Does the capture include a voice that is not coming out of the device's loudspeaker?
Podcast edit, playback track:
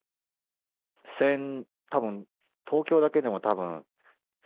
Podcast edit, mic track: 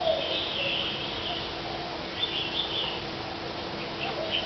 No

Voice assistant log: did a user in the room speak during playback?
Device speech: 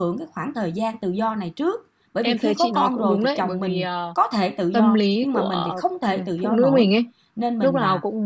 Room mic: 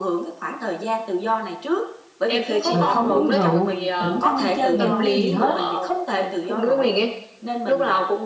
Yes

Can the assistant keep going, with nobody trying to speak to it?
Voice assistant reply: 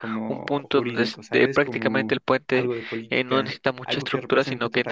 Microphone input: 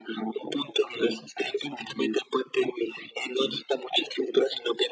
Yes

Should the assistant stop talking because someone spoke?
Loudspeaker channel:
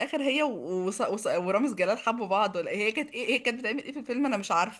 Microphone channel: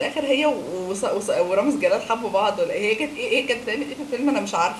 No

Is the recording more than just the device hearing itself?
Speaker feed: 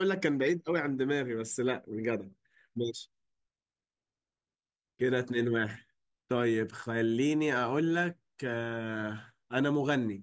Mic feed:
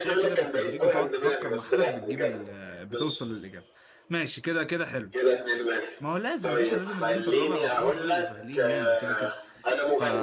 Yes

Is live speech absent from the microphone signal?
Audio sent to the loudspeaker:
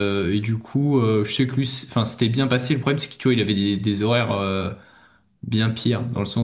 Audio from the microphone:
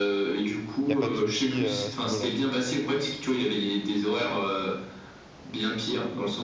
No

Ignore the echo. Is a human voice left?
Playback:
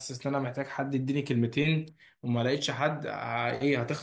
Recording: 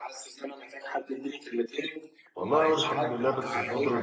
Yes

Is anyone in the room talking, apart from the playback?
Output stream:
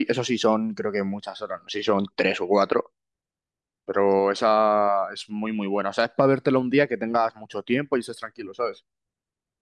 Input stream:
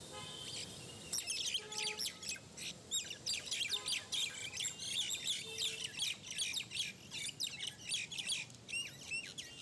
No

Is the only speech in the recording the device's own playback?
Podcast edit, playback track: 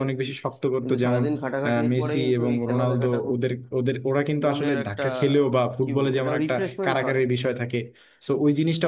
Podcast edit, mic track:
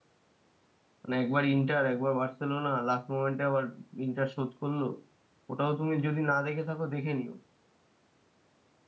No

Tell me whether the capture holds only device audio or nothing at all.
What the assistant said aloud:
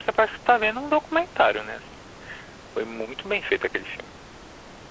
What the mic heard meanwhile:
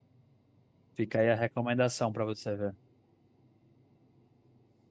No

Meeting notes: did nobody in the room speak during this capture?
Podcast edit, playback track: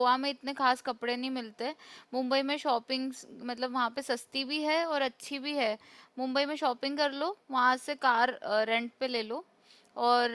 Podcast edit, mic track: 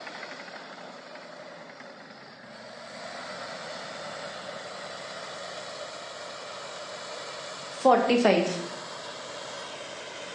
No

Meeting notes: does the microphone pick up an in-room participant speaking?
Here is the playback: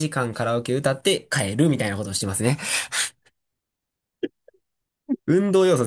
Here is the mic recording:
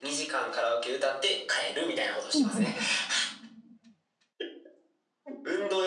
Yes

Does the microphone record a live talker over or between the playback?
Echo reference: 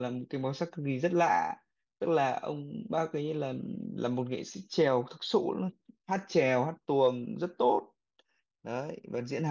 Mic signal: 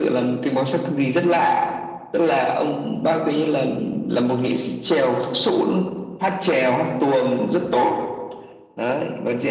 No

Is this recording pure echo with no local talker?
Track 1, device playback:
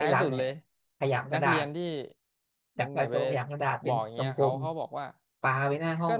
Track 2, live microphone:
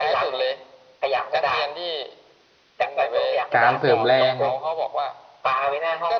No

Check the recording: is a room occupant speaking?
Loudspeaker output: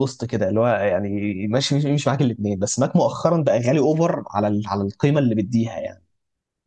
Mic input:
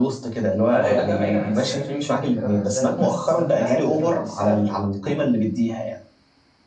Yes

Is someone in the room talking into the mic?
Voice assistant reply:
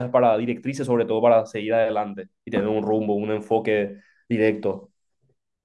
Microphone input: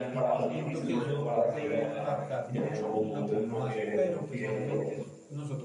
Yes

